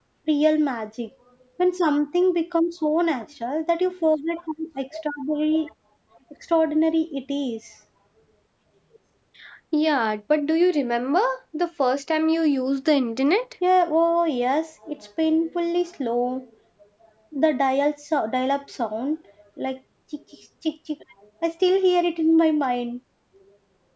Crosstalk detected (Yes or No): No